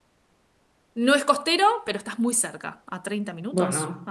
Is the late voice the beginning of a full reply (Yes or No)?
Yes